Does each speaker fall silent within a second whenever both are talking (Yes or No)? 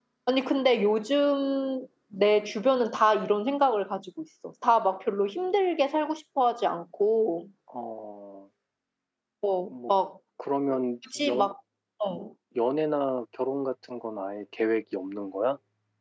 Yes